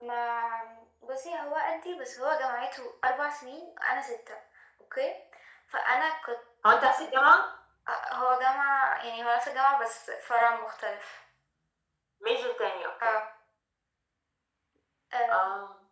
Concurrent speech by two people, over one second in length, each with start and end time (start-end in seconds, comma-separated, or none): none